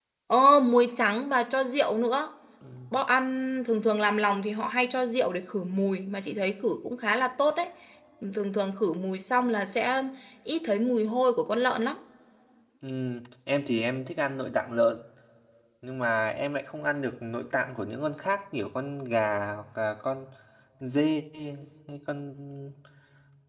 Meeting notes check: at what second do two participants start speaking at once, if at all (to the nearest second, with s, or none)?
none